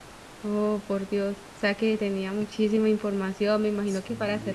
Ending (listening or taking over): taking over